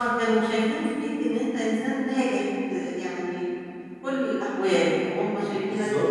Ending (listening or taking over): listening